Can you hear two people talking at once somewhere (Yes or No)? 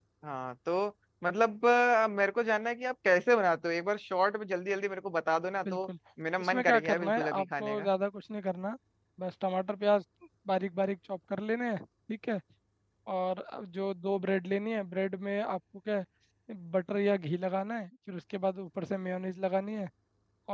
Yes